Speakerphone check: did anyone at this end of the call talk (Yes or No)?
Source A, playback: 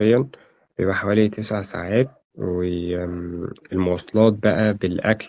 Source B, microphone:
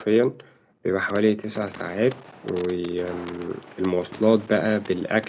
No